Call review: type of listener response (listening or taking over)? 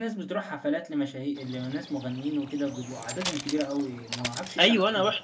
taking over